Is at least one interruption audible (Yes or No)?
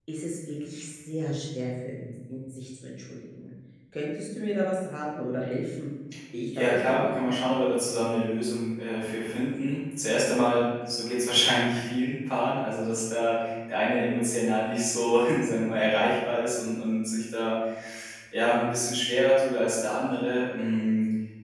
Yes